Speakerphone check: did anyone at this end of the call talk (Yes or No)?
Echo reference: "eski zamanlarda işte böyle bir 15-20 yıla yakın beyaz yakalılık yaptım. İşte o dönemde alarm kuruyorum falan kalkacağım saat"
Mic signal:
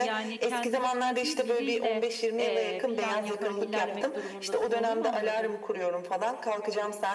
Yes